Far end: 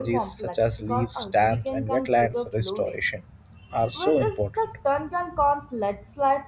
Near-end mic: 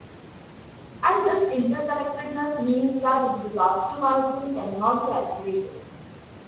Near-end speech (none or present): present